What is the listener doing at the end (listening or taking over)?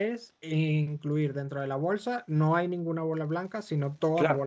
taking over